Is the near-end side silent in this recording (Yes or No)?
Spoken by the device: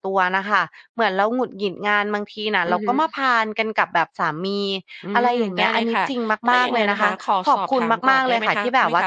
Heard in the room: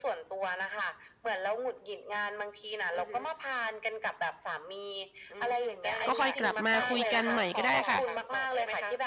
No